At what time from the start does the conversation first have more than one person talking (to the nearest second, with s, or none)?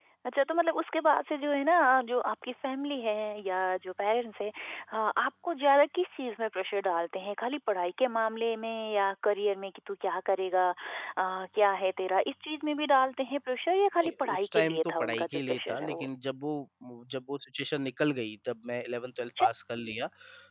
14 s